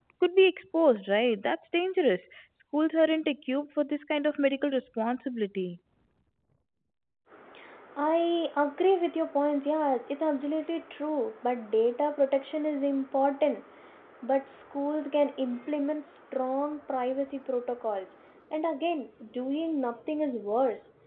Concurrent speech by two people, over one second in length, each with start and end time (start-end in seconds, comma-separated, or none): none